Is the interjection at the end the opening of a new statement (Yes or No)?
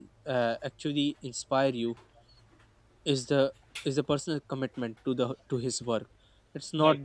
No